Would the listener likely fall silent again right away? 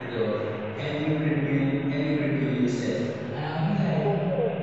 Yes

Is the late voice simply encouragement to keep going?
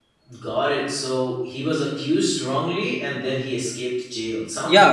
No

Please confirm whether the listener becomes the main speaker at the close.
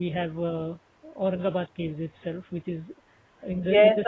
Yes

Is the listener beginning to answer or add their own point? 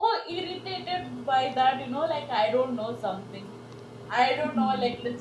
No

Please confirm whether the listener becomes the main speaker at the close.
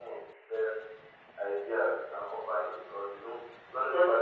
No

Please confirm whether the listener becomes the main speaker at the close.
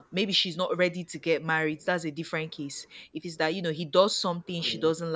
No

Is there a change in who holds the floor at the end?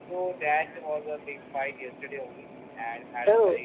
No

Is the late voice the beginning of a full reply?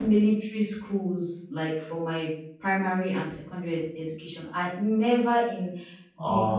No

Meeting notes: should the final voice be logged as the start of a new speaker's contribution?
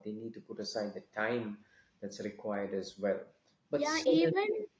Yes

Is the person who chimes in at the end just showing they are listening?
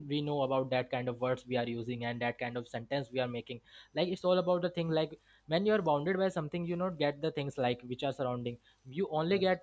Yes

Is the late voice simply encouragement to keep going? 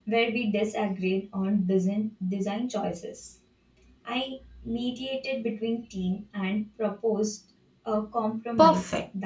No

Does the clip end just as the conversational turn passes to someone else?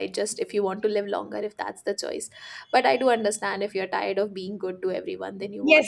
Yes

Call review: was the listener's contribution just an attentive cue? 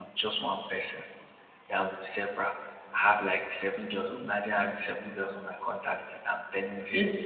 Yes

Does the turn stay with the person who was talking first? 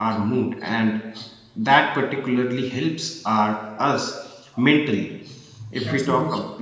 Yes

